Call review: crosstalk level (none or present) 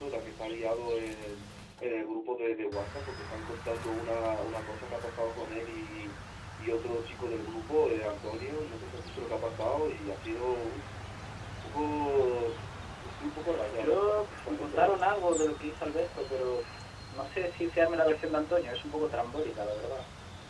present